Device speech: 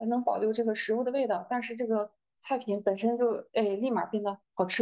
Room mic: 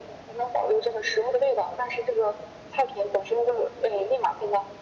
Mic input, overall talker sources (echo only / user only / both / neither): echo only